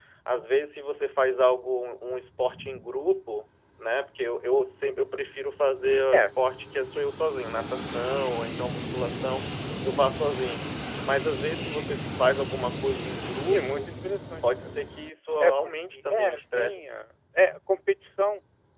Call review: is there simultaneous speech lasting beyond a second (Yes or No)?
Yes